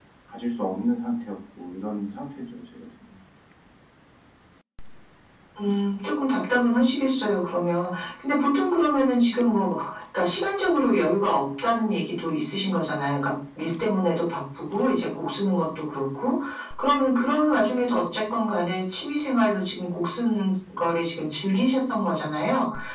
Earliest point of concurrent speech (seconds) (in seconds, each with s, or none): none